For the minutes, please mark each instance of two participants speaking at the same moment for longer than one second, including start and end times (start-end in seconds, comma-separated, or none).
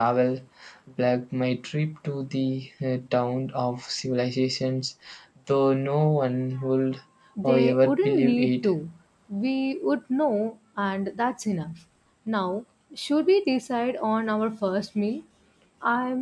7.4-8.7